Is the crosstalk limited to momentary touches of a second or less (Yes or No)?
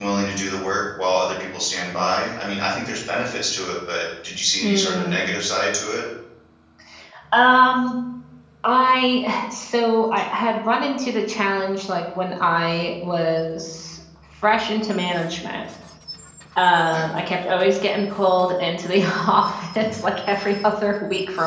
Yes